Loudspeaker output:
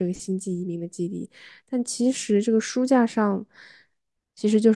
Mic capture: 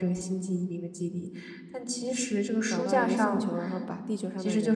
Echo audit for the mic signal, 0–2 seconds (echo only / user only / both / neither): echo only